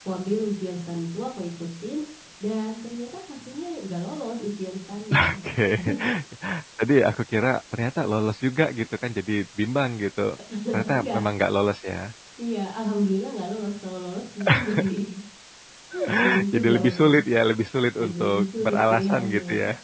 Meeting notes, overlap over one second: present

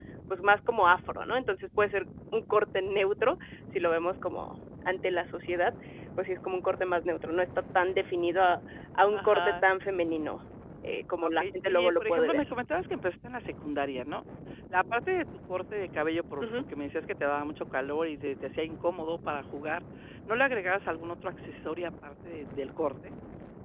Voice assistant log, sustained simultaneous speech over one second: present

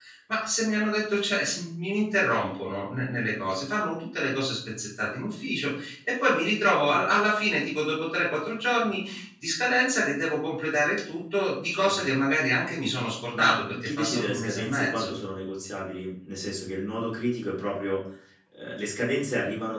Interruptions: present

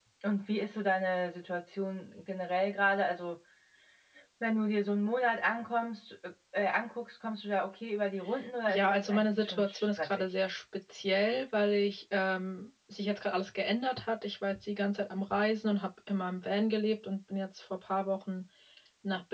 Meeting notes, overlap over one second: present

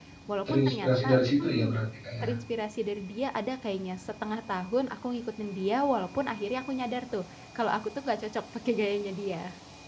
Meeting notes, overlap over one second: present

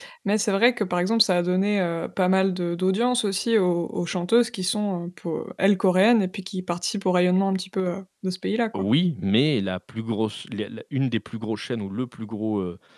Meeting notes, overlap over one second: none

